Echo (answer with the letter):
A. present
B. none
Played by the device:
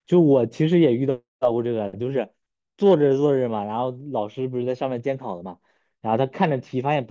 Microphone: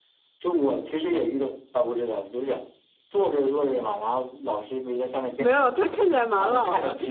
A